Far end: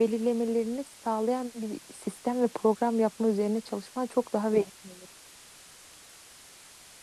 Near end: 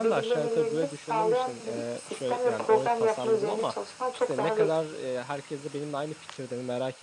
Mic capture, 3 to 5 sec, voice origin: both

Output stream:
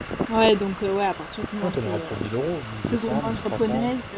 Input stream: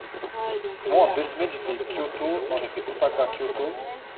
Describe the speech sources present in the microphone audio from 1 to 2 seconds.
both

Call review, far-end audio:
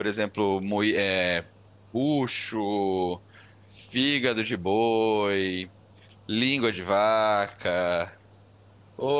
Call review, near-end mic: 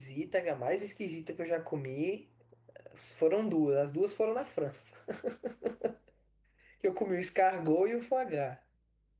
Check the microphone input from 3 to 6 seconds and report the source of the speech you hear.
user only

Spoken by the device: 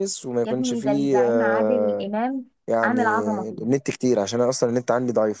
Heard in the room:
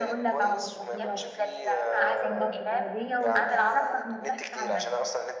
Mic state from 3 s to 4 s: both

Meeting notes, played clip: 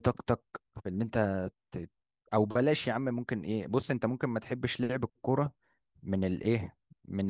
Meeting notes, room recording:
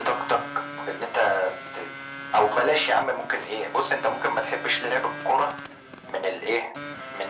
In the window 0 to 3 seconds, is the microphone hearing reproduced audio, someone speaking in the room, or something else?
echo only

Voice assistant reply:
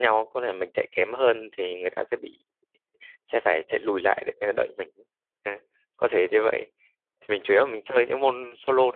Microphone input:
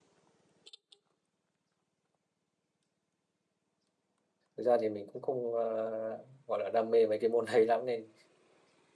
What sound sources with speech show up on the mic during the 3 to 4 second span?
neither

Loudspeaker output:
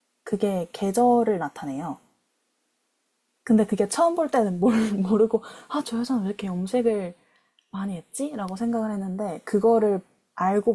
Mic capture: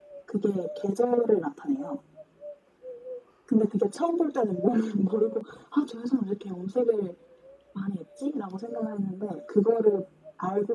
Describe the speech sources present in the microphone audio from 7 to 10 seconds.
echo only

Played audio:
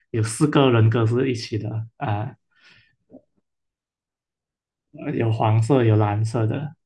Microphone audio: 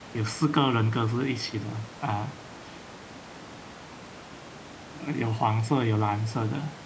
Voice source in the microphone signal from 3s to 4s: neither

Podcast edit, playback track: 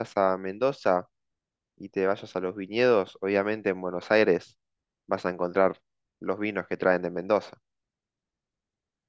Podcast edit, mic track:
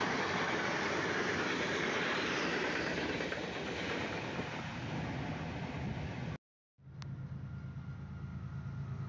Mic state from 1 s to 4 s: neither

